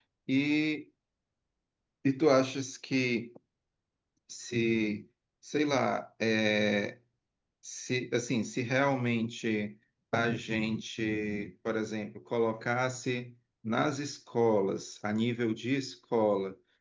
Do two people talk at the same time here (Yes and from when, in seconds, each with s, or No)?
No